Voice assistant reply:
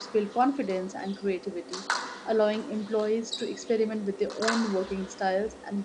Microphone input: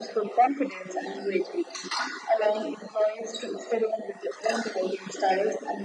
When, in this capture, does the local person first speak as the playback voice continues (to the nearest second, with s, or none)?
none